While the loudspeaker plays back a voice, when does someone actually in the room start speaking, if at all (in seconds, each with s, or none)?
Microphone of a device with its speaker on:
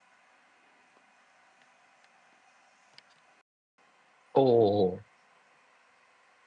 4.3 s